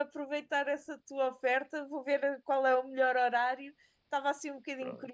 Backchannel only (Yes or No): Yes